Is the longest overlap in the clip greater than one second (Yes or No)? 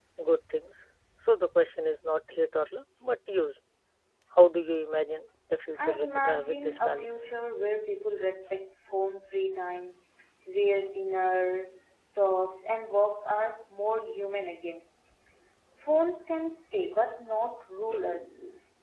Yes